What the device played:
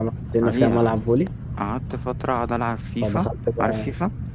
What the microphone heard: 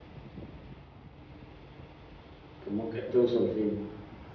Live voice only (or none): كان ممكن توصل فين؟